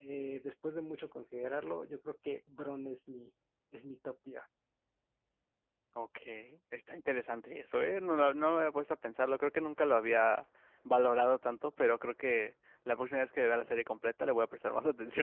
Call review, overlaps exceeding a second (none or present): none